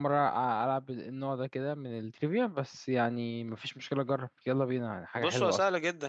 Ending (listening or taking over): taking over